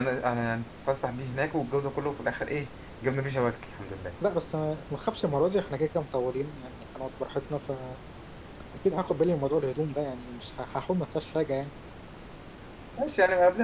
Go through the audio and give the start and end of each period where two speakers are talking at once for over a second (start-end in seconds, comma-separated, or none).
none